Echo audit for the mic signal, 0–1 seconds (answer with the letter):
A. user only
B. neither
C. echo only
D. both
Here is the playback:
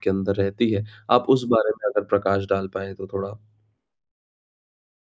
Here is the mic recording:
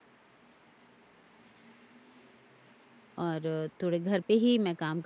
B